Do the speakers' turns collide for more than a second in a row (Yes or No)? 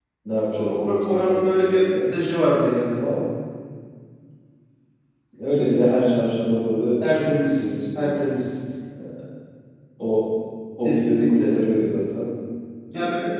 Yes